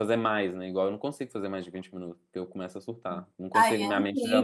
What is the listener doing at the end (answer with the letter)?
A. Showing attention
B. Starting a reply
B